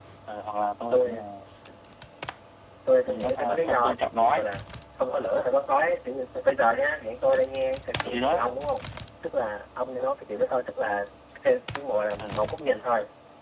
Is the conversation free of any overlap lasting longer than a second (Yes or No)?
No